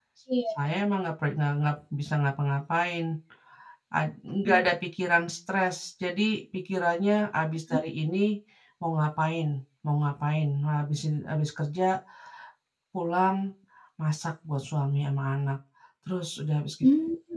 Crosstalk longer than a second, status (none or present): none